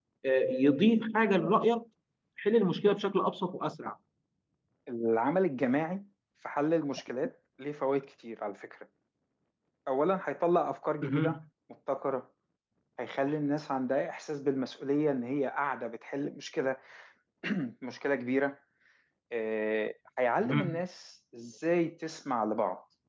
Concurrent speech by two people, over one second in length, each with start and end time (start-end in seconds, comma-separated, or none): none